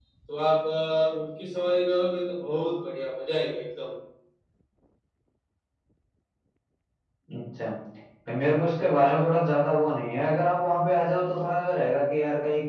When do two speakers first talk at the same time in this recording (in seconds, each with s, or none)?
none